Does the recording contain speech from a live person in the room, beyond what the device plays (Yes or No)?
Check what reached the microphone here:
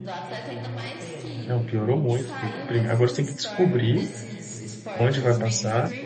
Yes